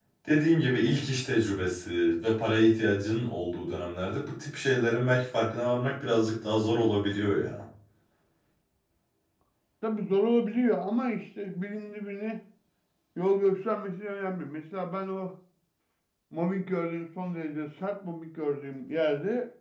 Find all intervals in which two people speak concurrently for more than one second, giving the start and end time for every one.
none

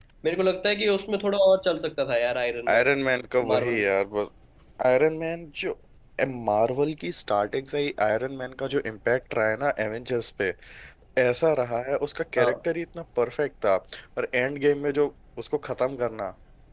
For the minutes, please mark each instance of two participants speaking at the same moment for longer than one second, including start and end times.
none

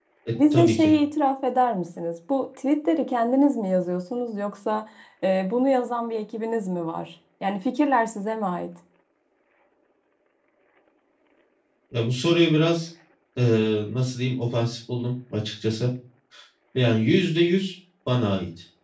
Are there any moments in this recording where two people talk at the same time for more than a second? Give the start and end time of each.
none

